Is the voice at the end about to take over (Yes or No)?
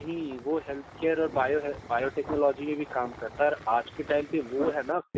No